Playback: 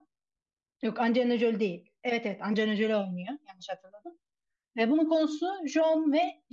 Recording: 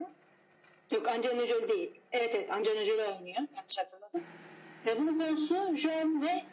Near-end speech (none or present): none